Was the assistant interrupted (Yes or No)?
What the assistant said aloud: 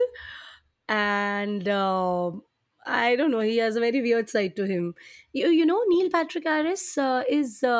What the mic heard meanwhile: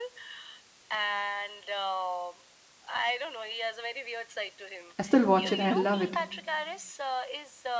Yes